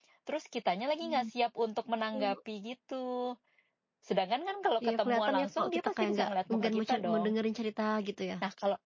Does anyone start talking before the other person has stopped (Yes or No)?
Yes